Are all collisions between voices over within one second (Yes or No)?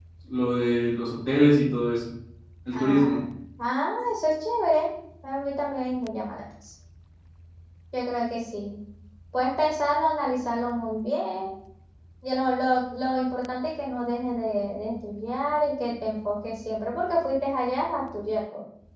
Yes